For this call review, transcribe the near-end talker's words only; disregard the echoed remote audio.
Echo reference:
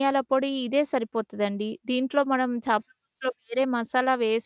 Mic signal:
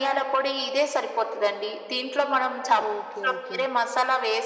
ఓకే. ఓకే.

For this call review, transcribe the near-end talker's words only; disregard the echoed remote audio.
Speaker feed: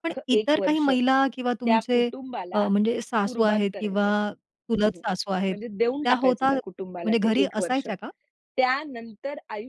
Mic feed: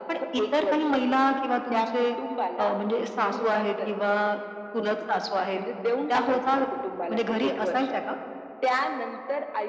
none

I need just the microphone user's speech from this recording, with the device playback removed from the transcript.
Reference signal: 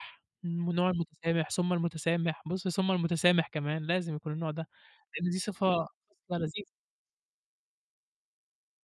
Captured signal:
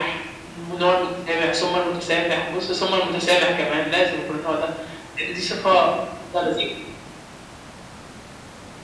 none

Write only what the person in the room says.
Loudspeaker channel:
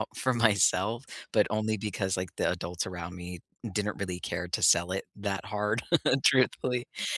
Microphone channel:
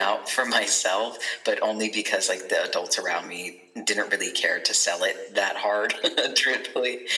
none

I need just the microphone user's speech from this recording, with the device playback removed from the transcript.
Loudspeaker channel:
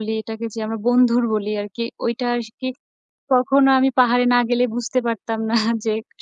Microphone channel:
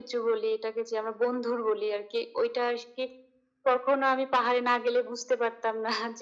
none

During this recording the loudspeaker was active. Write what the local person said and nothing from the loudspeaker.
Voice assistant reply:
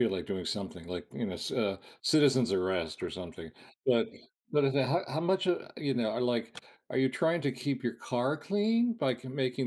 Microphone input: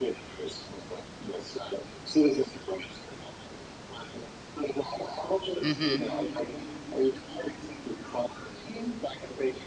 Mhm.

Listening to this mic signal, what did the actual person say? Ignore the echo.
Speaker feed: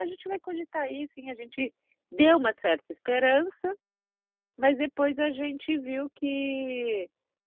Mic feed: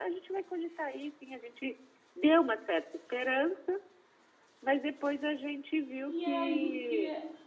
E aí que é

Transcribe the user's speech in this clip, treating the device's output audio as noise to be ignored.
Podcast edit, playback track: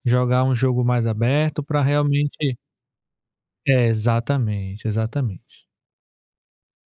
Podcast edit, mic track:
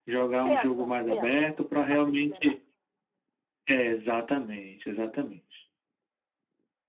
pesa, pesa. Bota a gente lá embaixo.

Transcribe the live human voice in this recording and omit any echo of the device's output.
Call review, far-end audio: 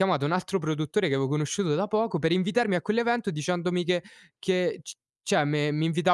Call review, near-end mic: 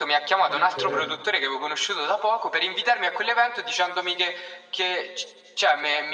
Eh, certo.

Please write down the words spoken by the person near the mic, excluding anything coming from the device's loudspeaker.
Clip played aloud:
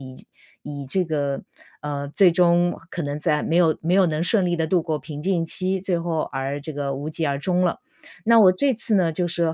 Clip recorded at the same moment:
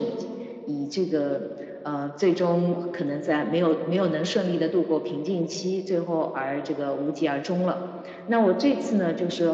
none

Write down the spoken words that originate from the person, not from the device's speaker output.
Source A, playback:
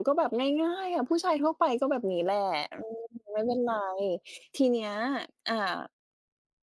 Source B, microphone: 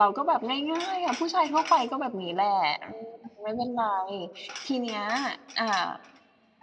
none

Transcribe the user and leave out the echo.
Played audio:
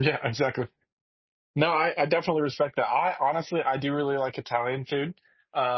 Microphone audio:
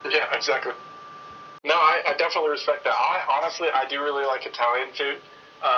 none

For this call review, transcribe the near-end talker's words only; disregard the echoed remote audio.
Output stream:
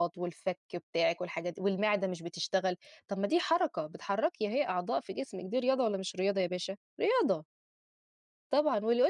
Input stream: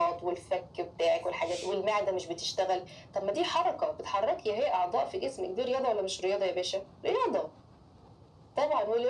none

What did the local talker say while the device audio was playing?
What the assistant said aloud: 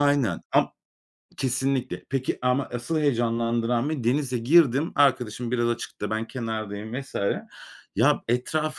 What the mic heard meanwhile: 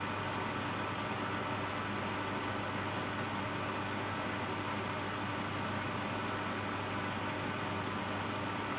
none

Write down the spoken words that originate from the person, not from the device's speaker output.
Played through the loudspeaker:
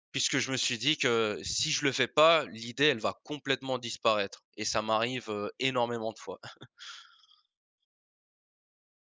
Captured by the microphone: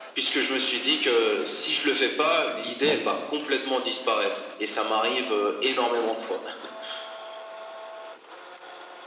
exactement.

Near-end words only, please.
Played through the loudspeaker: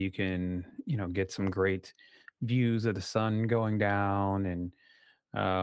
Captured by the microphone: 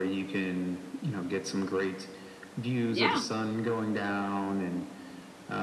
Yeah.

